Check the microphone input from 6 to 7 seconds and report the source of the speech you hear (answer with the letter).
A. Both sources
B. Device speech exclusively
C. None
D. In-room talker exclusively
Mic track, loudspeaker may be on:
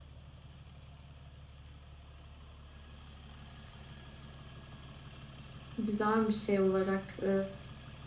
D